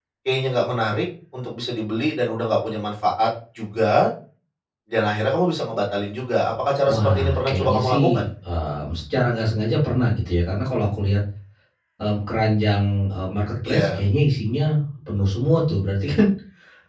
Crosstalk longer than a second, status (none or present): present